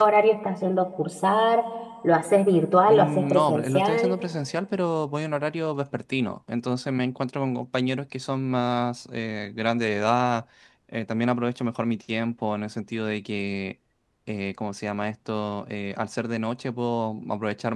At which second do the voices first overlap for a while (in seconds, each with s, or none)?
2.9 s